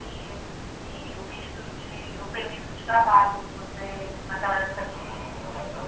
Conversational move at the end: taking over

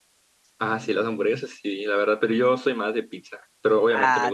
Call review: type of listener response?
taking over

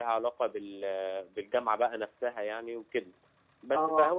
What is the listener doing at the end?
listening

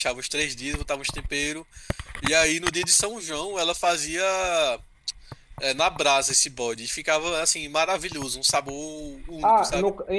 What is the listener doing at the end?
taking over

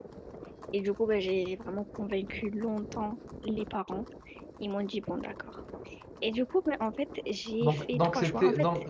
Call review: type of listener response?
taking over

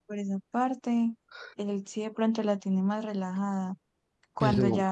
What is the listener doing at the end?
listening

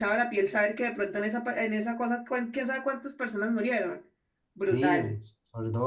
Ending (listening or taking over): taking over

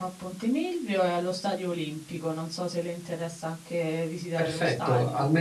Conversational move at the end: taking over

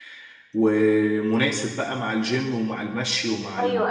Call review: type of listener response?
taking over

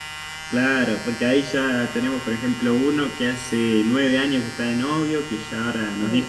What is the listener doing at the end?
listening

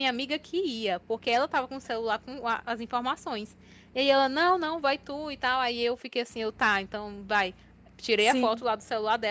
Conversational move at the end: listening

